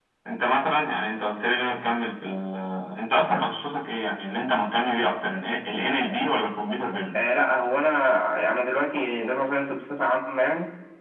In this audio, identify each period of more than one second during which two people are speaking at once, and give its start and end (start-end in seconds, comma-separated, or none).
none